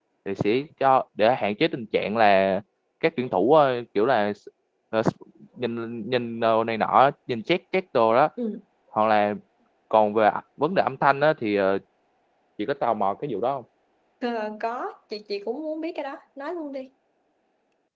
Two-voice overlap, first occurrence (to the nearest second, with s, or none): none